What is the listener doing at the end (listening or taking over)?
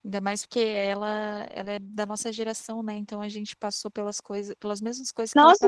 taking over